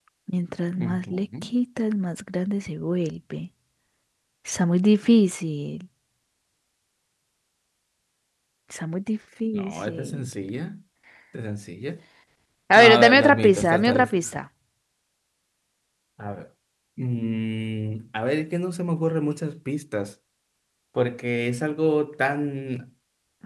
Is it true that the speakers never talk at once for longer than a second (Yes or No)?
No